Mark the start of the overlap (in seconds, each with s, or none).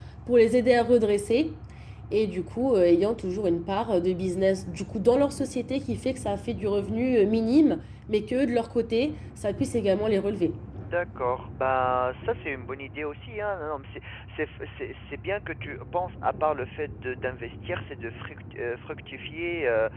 none